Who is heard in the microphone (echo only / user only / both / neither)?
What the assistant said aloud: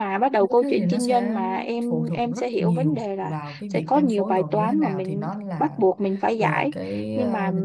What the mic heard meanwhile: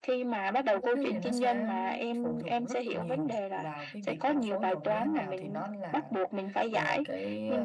echo only